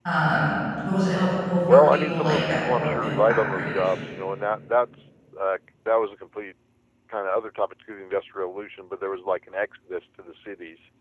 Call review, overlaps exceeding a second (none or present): present